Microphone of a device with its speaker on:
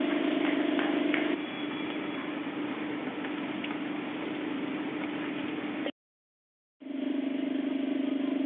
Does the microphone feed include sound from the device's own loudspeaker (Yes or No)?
No